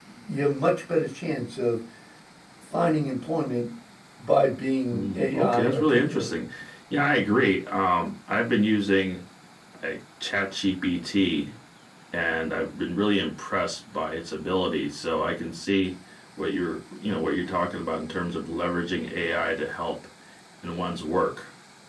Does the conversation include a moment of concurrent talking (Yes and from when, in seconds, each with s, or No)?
Yes, from 4.9 s